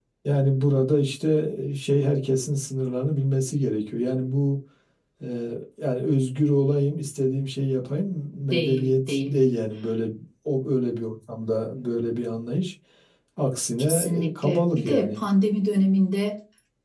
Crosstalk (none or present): present